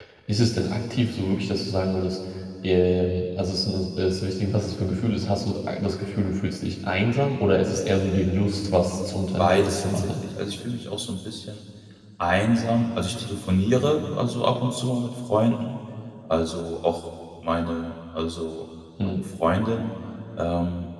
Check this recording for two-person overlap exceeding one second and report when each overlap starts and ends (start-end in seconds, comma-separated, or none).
8.6-10.1